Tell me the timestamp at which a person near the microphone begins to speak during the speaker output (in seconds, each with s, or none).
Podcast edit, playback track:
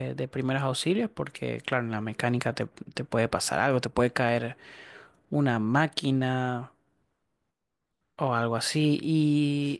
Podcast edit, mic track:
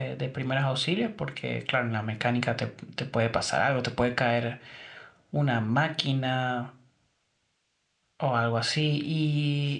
none